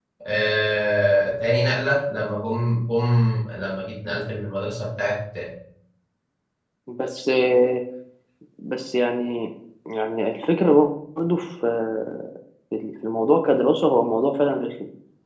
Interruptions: none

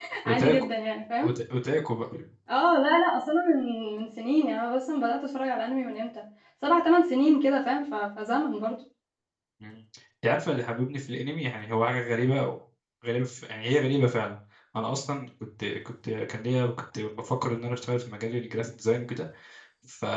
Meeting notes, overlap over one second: none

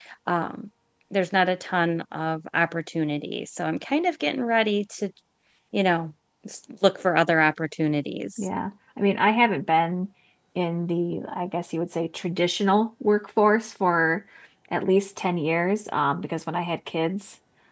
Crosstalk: none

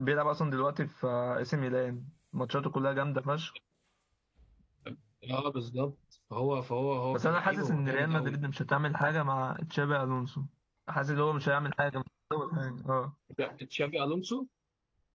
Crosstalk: present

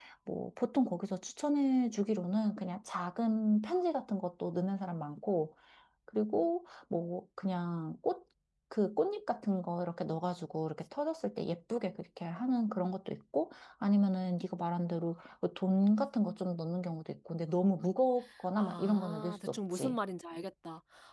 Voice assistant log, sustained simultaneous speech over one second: present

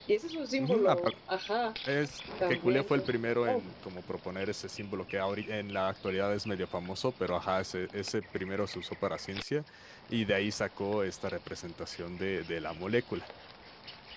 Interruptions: present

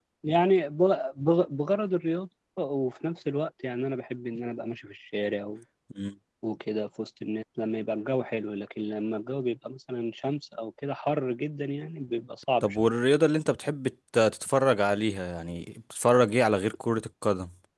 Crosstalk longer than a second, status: none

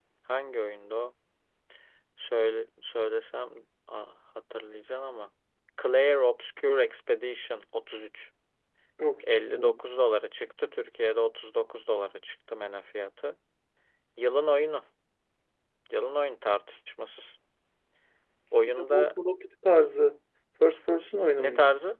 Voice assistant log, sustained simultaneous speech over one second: none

